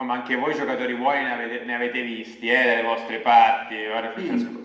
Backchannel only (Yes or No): Yes